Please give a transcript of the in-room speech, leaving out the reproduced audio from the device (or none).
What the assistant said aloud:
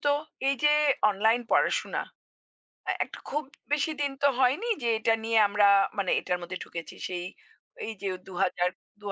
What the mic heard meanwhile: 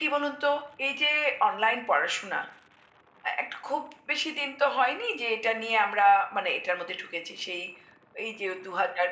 none